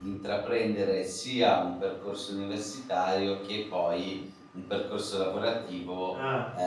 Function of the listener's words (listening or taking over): listening